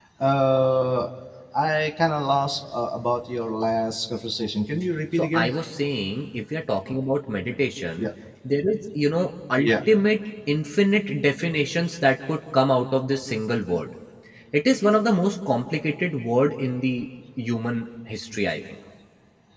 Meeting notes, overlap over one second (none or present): none